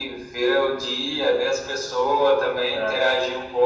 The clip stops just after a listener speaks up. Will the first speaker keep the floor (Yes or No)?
Yes